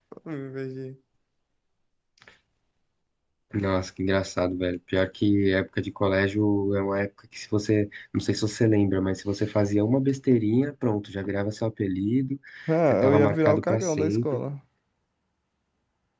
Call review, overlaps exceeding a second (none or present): present